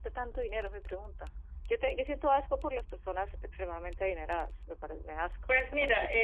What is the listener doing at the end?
taking over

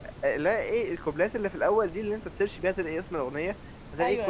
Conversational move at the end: listening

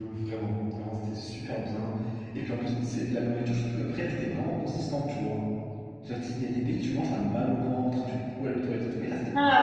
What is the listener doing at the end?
taking over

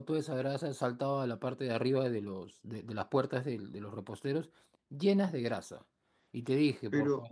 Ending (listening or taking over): listening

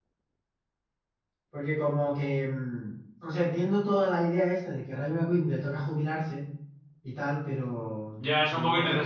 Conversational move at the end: taking over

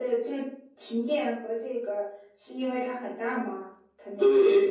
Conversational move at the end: taking over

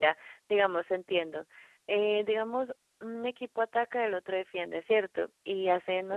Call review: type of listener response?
listening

